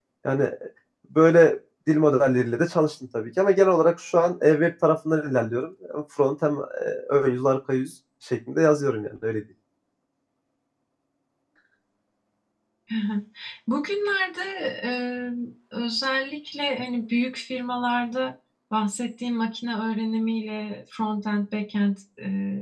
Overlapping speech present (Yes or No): No